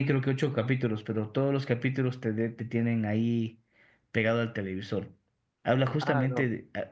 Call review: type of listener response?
listening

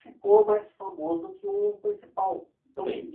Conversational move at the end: listening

